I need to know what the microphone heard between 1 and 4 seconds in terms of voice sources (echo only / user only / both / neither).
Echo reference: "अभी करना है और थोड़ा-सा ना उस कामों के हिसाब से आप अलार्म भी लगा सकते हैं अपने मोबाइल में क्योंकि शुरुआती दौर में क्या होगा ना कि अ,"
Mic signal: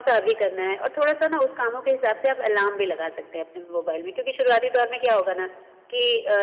echo only